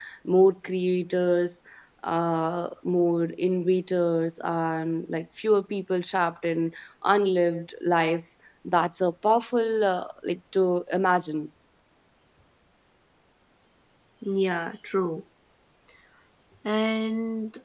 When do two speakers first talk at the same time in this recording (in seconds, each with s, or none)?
none